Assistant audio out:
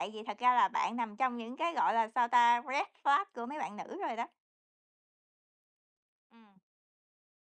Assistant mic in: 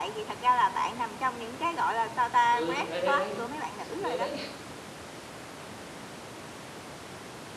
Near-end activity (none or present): present